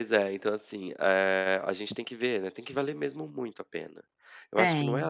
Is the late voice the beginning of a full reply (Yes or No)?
No